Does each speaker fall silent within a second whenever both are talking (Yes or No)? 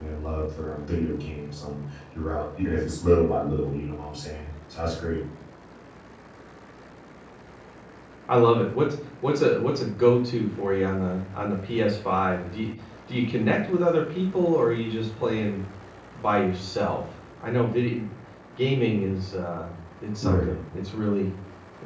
Yes